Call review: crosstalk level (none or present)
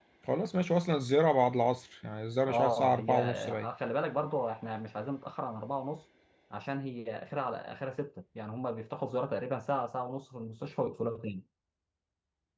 present